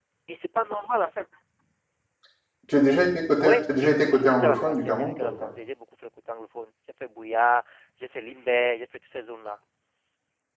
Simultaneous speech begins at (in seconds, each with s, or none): 3.4 s